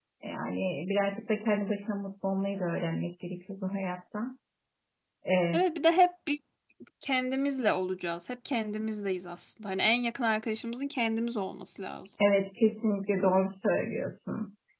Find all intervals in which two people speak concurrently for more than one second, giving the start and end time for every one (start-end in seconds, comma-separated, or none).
none